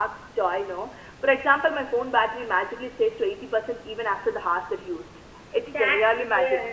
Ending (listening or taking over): taking over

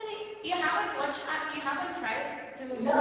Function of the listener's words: taking over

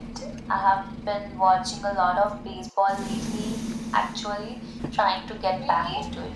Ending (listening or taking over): taking over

